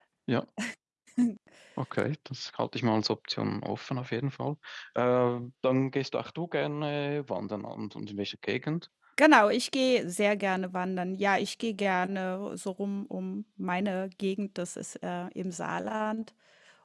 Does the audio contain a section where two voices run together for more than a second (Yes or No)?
No